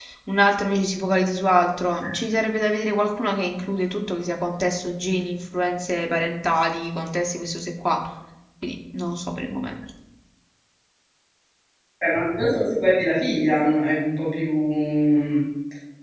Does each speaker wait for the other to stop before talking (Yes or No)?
Yes